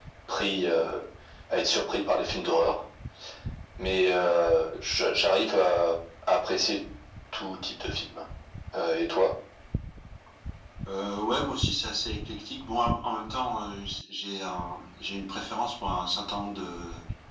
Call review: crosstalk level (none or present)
none